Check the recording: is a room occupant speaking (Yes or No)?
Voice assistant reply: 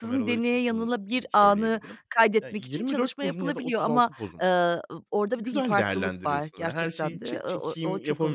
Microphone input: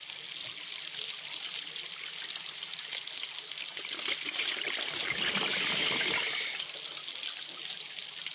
No